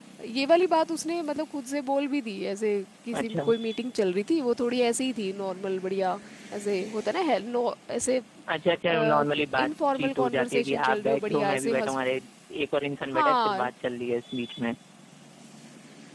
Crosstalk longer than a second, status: present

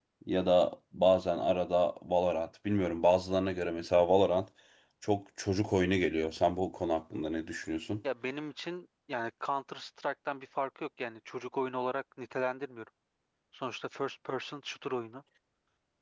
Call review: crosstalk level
none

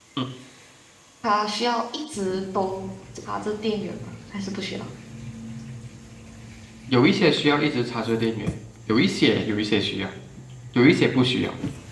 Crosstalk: none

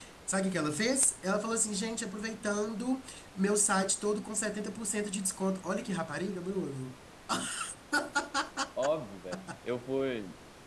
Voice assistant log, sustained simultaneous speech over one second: none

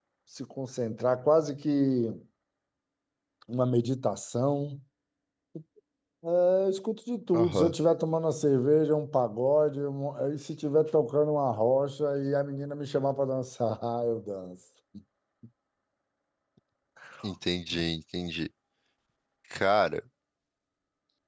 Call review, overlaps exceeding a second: none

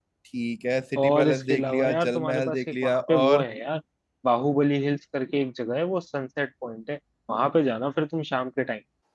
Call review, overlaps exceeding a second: present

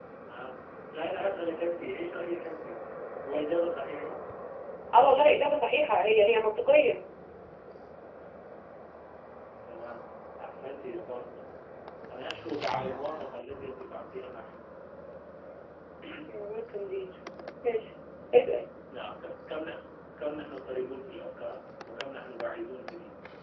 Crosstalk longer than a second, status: none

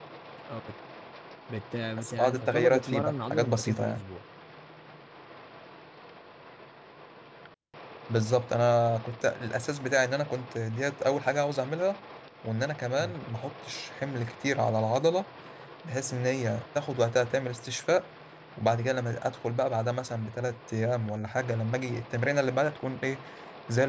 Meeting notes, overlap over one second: present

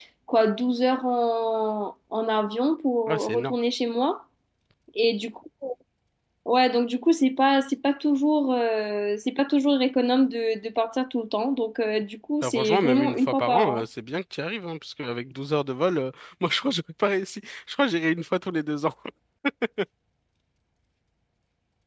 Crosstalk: present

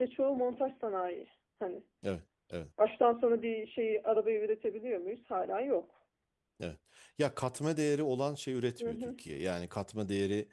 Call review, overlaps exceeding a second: none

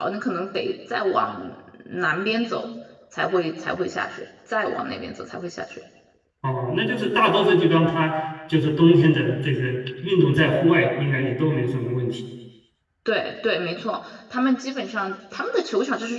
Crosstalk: none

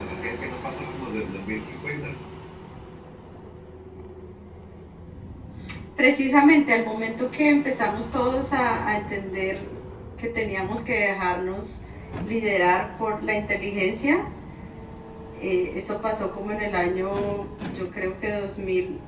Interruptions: none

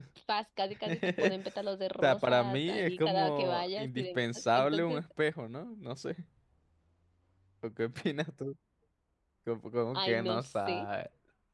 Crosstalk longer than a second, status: present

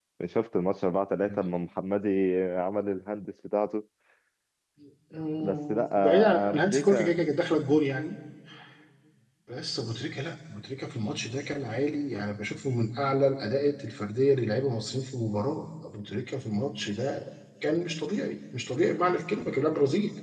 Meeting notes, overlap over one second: present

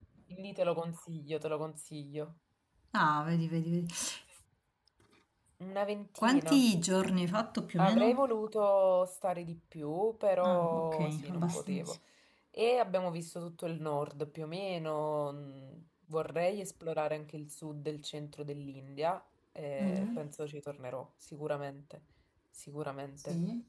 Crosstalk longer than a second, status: present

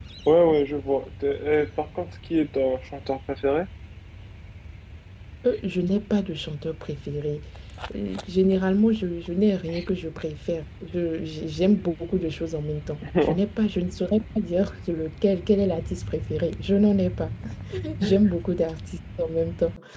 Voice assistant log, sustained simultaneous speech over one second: none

